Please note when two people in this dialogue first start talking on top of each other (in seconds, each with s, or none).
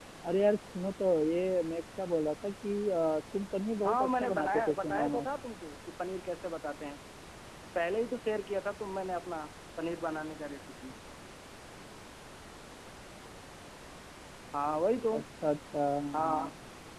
3.8 s